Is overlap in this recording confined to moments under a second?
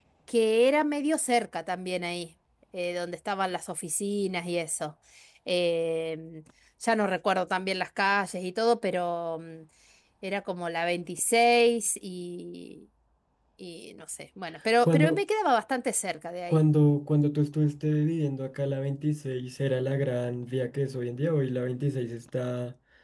Yes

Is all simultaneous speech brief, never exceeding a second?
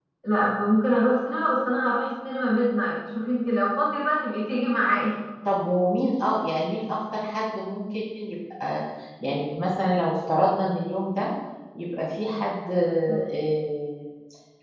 Yes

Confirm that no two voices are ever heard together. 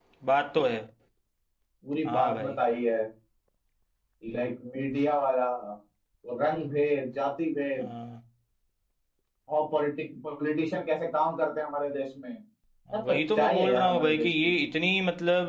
No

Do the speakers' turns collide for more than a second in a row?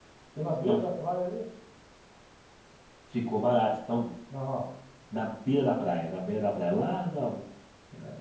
No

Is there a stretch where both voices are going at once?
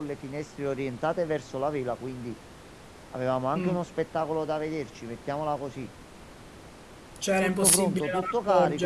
Yes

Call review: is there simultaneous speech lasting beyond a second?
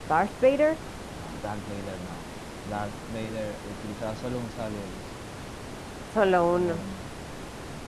No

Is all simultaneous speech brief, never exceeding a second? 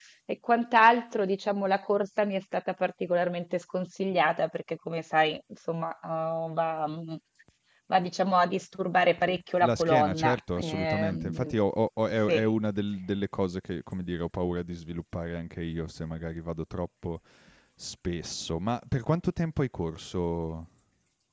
No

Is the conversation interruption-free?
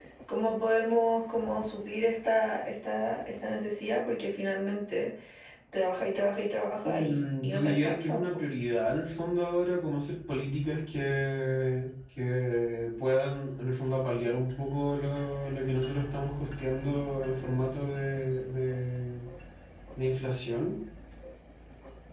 No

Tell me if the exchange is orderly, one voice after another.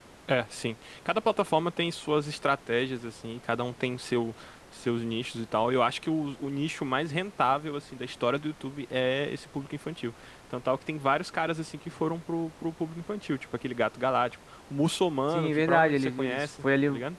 No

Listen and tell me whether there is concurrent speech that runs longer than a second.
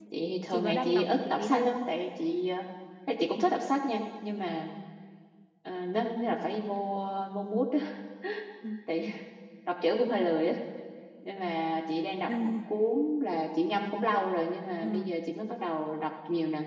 Yes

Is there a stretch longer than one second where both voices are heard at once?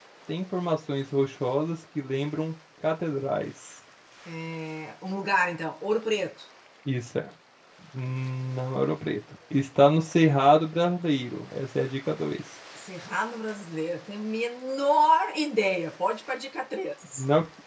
No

